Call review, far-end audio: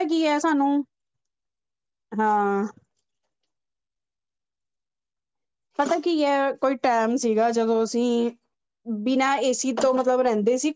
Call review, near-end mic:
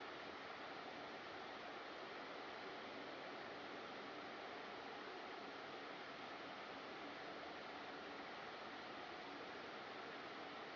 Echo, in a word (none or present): none